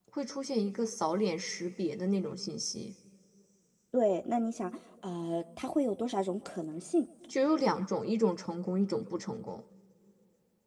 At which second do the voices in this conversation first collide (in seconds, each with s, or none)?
none